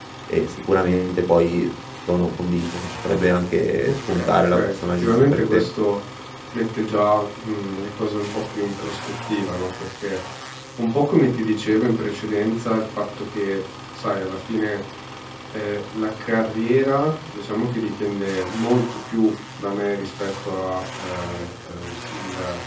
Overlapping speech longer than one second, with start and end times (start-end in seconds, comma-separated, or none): 3.8-5.6